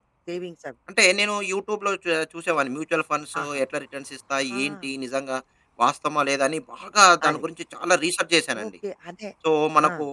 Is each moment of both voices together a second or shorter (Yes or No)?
Yes